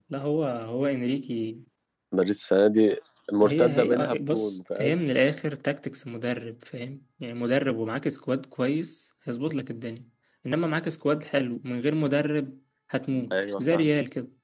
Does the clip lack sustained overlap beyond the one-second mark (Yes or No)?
No